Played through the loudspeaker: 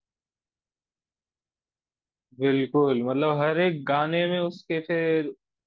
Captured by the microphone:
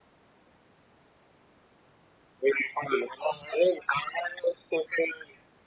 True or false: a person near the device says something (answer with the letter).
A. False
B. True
A